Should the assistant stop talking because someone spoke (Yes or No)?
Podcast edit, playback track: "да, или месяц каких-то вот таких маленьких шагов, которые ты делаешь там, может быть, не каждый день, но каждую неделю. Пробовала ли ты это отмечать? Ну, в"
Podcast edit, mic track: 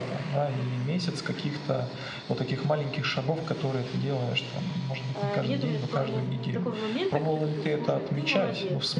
Yes